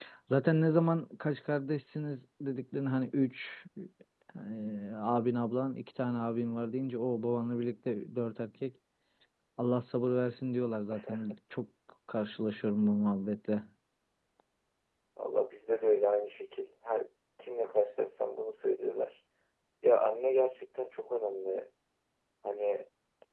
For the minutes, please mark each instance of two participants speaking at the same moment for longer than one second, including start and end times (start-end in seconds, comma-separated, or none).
none